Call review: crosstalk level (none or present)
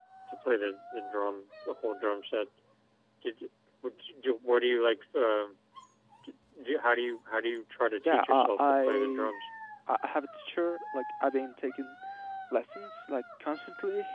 present